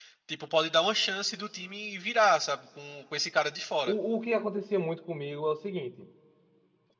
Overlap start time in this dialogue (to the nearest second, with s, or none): none